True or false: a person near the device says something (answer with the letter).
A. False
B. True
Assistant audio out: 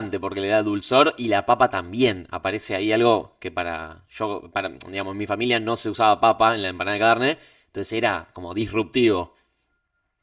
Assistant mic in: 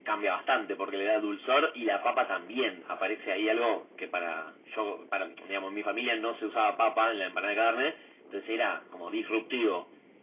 A